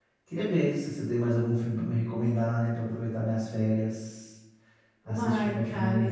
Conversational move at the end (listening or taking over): taking over